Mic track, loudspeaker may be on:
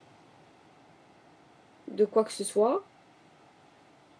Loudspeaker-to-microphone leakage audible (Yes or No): No